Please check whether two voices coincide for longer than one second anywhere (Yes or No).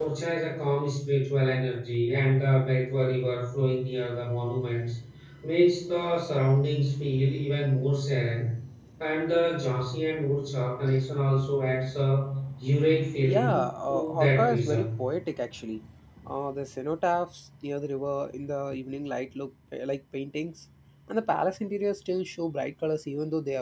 Yes